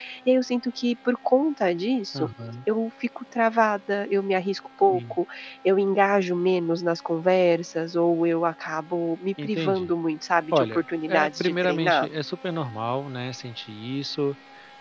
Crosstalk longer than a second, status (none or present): present